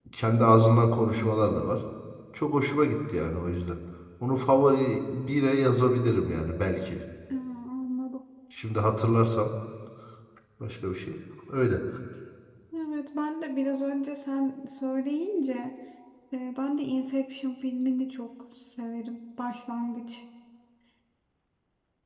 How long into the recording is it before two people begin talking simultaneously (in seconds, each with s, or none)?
none